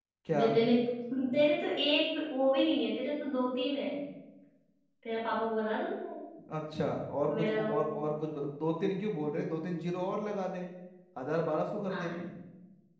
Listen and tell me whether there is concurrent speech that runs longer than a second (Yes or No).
No